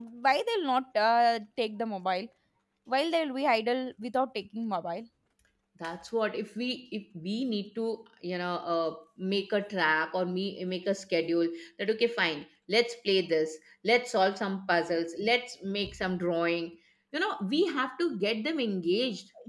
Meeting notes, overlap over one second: none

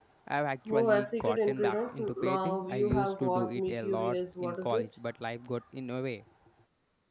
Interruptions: present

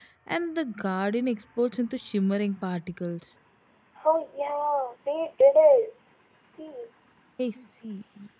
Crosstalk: none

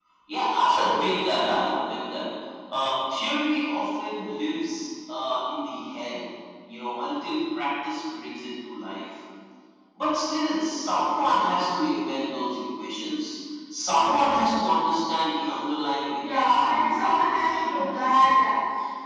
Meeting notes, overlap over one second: present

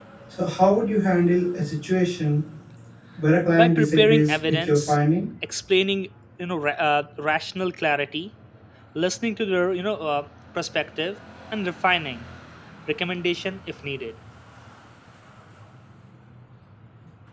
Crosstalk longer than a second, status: present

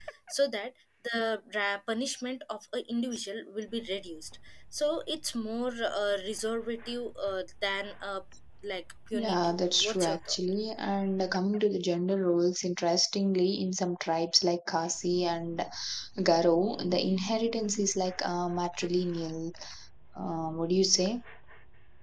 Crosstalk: present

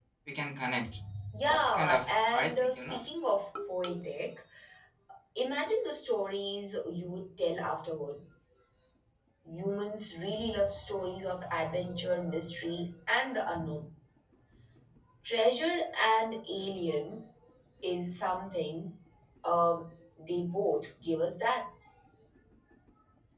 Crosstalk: present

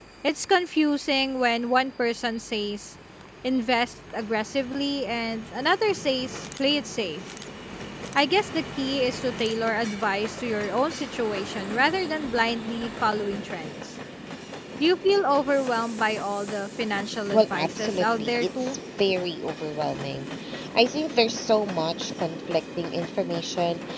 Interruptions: present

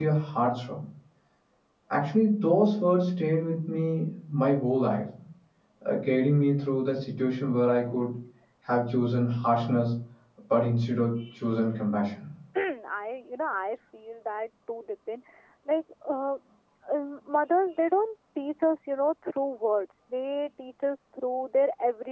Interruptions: none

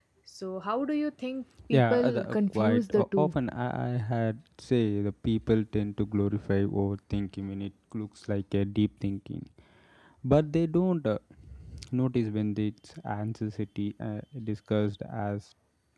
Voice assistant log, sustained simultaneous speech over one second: present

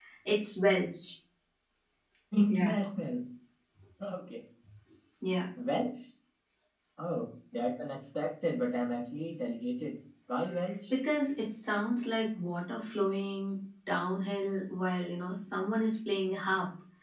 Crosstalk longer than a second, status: none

